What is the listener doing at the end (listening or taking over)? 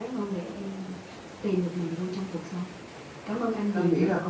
taking over